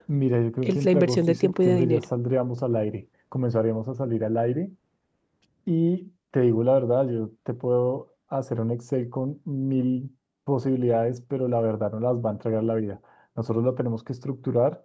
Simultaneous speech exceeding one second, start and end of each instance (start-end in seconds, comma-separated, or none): 0.6-2.0